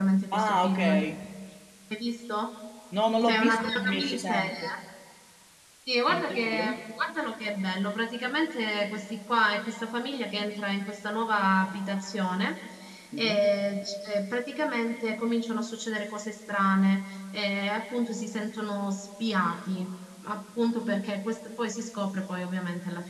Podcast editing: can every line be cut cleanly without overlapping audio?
No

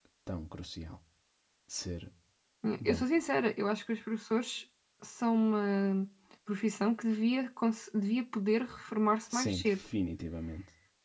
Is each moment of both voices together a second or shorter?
Yes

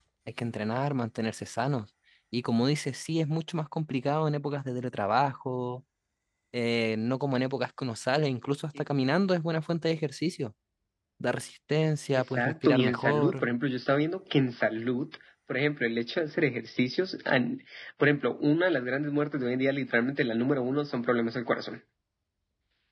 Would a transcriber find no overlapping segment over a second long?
No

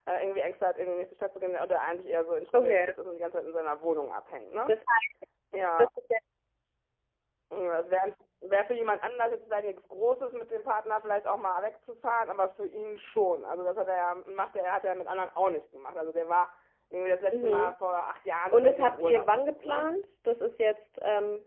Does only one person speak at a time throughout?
No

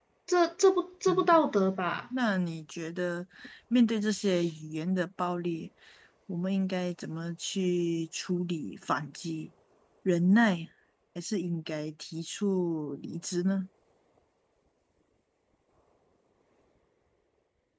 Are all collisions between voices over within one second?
Yes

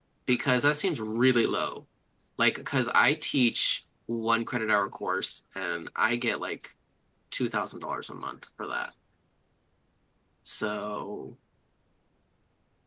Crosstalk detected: No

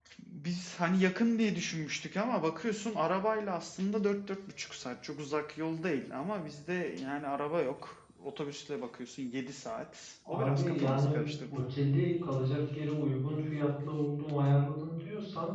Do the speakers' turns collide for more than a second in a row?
Yes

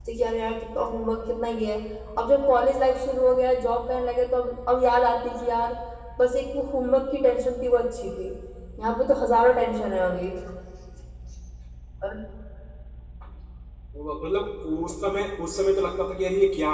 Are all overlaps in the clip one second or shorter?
Yes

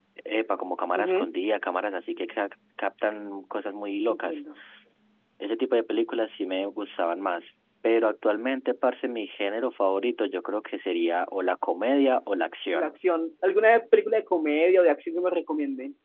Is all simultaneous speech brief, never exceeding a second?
Yes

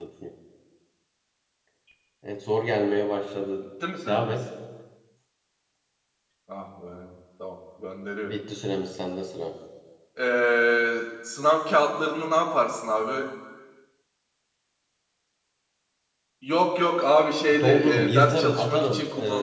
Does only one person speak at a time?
No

